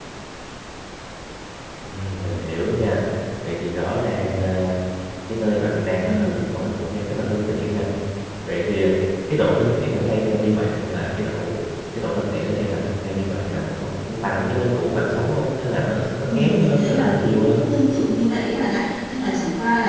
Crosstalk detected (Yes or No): Yes